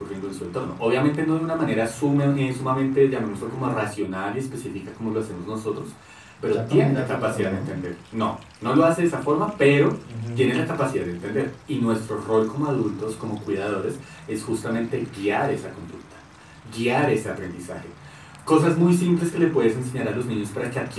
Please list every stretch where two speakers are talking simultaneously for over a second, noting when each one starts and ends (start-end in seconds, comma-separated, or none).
6.4-7.7